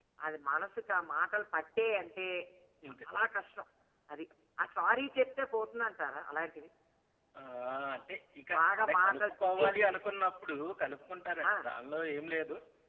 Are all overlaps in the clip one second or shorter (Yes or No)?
No